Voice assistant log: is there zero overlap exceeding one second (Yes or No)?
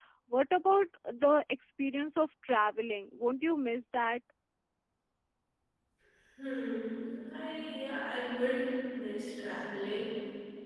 Yes